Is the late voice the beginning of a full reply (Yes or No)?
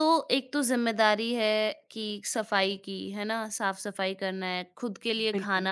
No